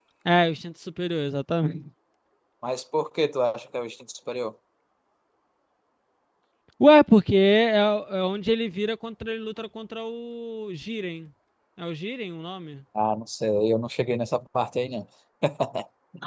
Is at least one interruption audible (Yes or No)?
No